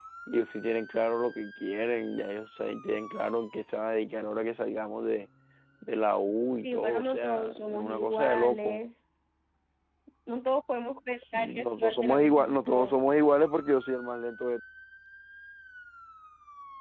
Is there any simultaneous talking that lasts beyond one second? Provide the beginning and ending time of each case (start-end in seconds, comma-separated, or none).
6.6-8.9, 11.3-13.0